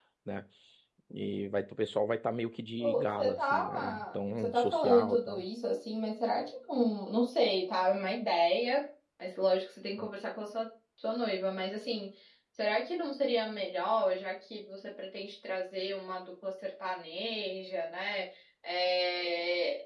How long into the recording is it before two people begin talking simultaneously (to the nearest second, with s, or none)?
3 s